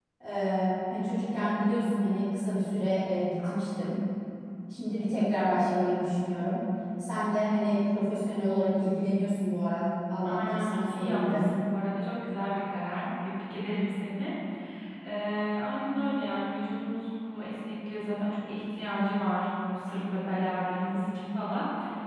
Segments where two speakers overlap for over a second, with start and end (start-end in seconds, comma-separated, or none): 10.2-11.6